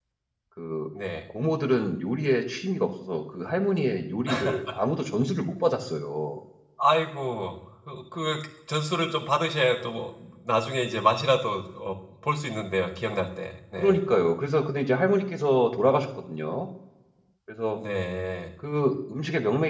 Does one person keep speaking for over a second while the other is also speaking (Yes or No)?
No